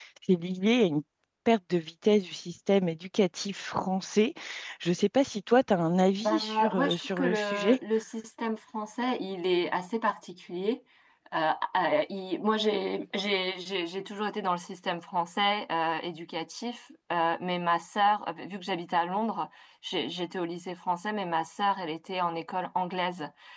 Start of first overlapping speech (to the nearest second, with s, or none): 6 s